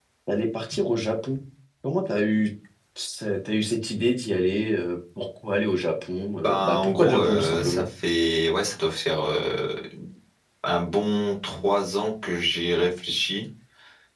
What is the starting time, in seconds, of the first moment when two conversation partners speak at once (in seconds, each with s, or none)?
6.4 s